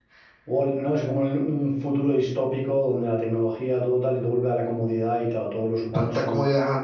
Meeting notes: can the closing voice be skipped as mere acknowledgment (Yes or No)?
No